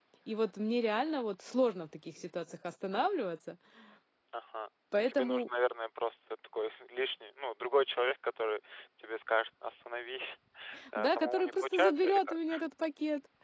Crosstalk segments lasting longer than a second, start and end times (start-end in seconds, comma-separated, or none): 11.0-12.4